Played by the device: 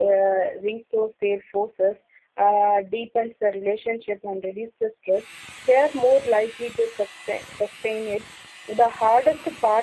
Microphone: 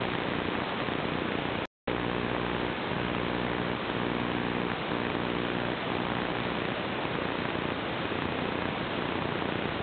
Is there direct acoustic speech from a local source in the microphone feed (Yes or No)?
No